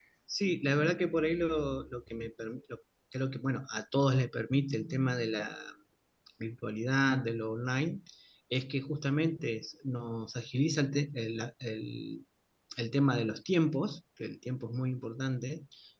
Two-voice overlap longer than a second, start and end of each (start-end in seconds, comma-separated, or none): none